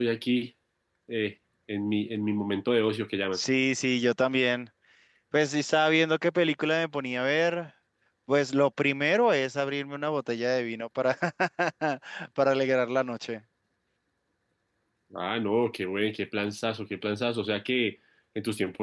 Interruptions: none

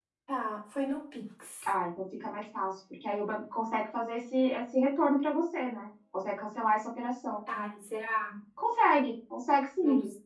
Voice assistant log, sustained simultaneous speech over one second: none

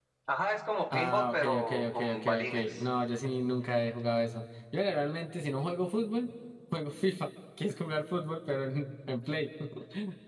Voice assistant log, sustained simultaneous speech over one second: present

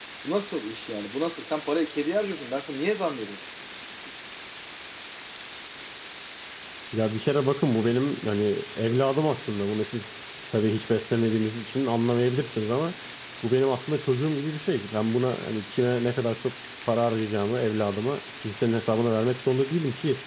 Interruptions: none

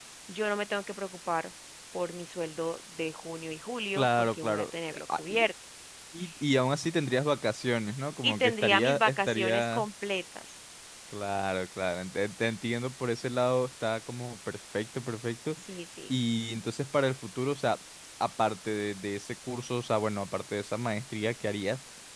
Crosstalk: present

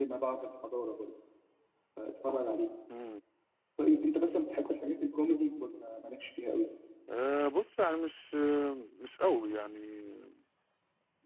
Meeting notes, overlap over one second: none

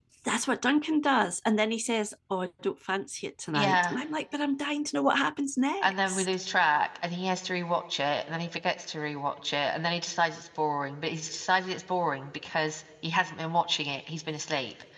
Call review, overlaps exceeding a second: none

